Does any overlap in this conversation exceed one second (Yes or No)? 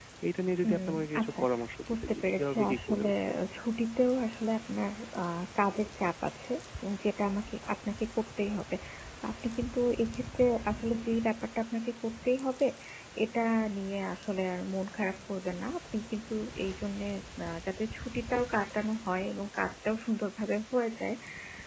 Yes